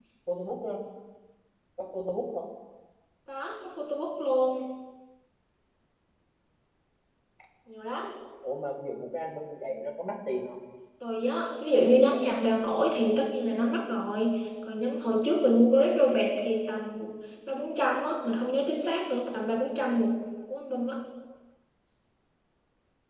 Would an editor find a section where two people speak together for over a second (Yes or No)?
No